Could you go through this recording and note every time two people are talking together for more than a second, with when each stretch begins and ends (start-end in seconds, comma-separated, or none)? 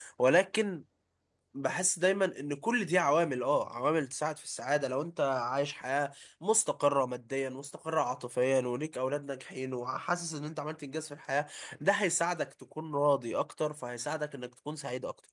none